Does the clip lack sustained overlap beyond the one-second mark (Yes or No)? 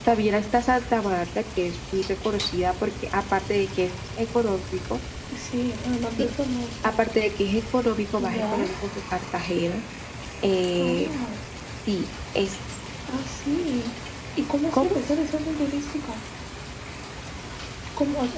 Yes